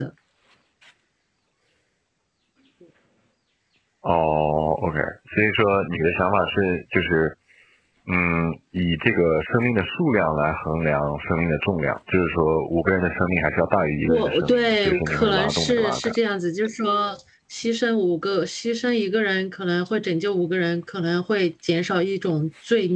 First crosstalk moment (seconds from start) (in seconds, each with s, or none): 14.1 s